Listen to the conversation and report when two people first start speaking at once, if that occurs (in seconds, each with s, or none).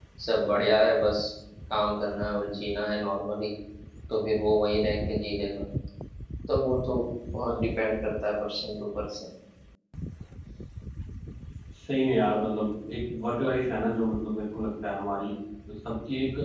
none